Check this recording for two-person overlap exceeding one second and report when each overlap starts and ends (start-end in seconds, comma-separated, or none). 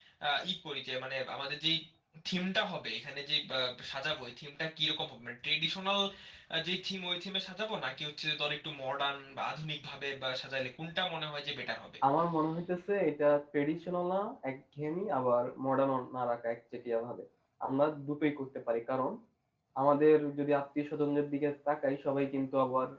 none